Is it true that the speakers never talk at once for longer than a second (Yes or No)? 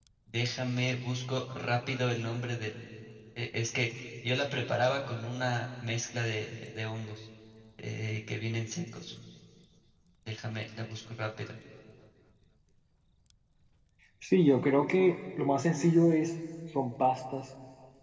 Yes